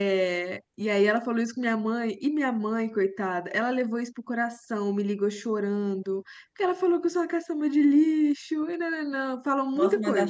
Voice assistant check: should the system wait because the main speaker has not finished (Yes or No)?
No